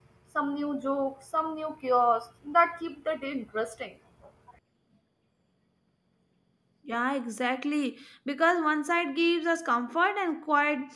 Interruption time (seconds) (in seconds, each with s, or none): none